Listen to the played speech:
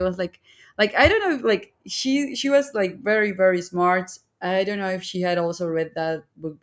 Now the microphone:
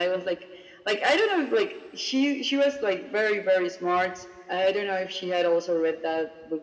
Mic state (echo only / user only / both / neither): echo only